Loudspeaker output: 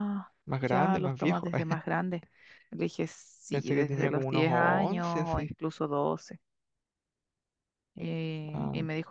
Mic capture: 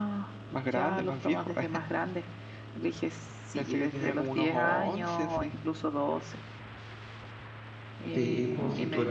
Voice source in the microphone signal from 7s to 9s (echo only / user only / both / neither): both